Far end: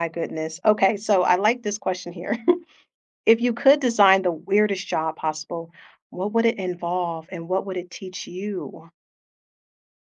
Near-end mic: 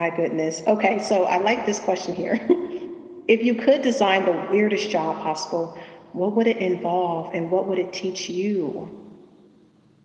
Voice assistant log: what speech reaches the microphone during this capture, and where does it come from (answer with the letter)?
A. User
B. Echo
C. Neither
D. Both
B